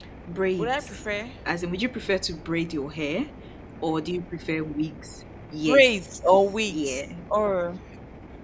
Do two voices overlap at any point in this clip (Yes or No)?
Yes